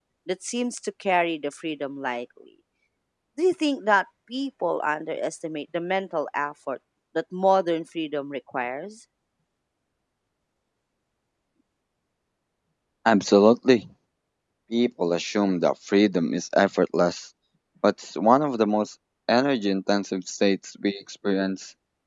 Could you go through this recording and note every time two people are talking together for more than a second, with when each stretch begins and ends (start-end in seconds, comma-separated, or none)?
none